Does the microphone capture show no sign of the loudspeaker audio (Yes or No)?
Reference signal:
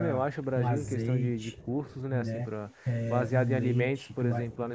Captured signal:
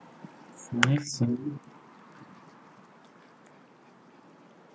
Yes